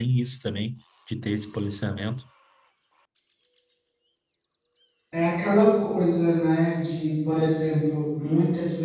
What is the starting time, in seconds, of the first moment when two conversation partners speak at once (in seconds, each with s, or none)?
none